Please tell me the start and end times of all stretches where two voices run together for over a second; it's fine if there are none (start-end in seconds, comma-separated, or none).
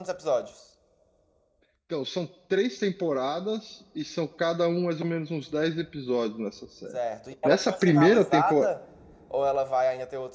7.4-8.7